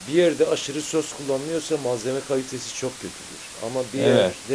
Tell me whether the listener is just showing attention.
Yes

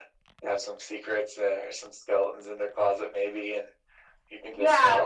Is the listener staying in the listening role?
No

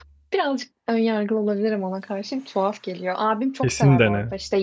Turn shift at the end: No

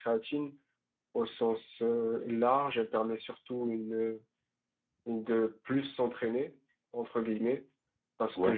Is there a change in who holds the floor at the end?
No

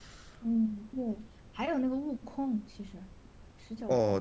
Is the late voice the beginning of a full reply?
Yes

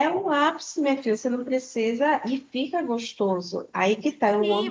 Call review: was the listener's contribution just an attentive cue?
No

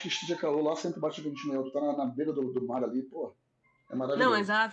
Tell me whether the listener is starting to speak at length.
Yes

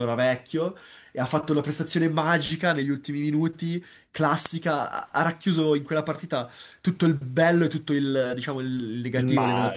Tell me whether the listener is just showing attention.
Yes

